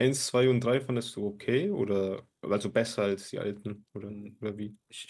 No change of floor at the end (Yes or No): No